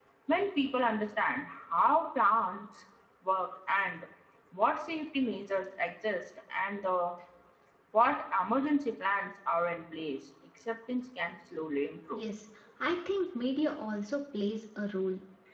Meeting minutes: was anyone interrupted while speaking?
No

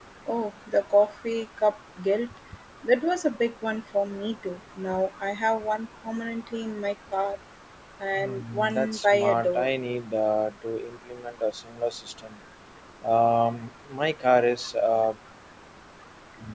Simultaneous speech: Yes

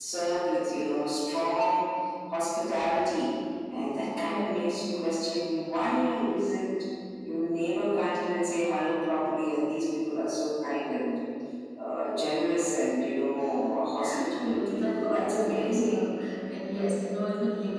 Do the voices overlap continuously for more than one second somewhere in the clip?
Yes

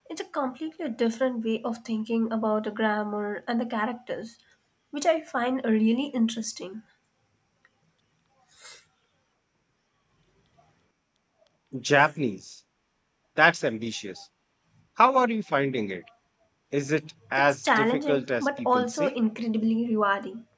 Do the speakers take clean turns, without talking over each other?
No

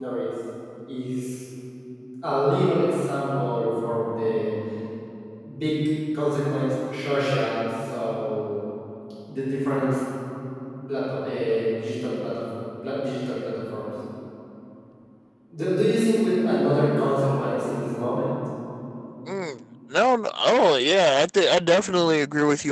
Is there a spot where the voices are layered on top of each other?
No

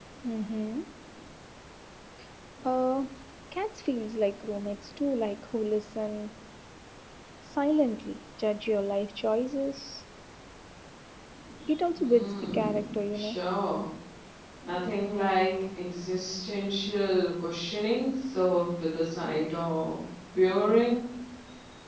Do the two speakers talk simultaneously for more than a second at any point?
Yes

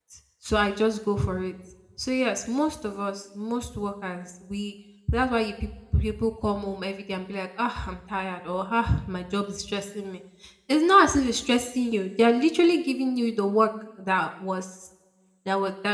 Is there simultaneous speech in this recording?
No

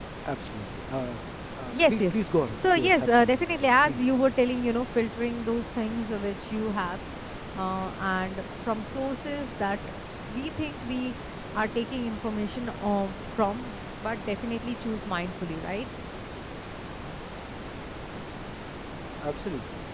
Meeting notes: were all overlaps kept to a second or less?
No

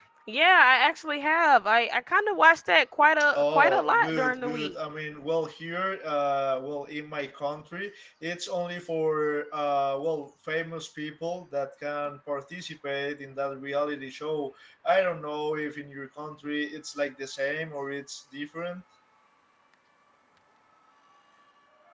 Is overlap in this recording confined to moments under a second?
No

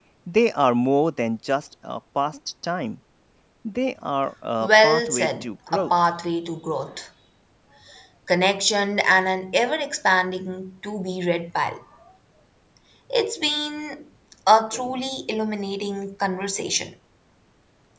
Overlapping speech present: Yes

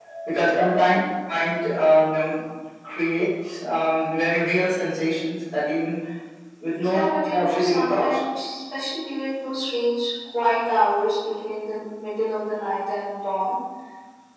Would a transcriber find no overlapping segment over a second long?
No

